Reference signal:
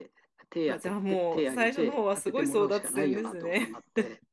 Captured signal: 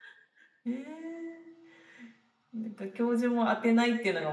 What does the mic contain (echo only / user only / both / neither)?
user only